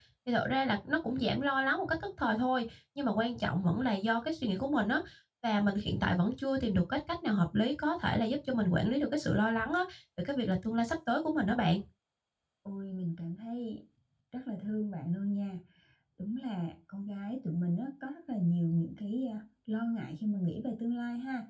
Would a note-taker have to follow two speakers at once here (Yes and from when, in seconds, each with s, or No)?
No